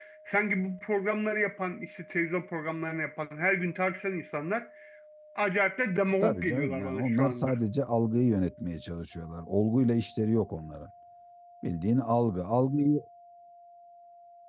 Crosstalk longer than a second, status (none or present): present